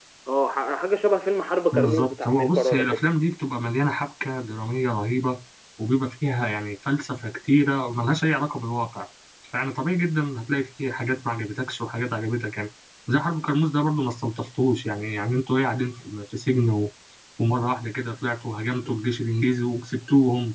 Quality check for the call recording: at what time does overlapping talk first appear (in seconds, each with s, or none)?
1.7 s